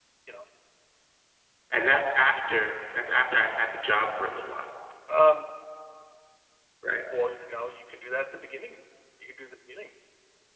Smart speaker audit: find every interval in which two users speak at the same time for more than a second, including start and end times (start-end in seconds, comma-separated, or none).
none